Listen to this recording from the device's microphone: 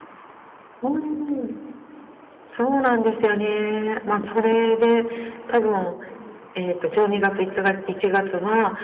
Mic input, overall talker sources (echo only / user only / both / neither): echo only